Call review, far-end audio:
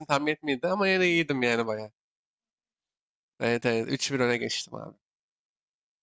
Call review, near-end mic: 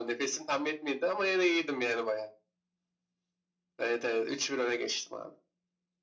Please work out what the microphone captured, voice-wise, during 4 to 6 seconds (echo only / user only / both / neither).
echo only